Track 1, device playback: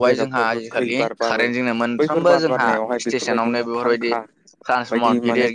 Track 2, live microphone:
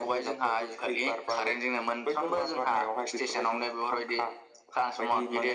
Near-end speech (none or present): none